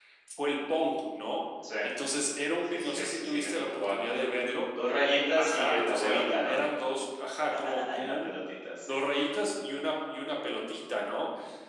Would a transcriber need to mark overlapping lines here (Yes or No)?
Yes